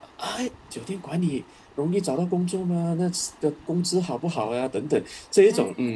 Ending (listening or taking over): taking over